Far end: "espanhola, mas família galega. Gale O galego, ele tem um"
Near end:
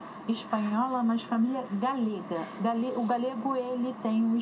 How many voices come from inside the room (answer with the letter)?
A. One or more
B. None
B